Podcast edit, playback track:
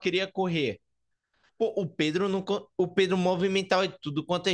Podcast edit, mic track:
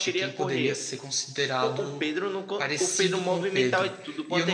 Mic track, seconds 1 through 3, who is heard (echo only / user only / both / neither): both